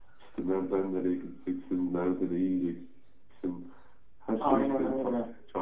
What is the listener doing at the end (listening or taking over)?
listening